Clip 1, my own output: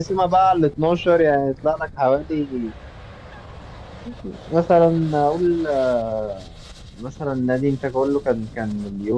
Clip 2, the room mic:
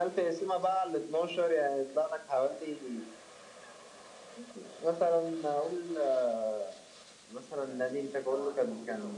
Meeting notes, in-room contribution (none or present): present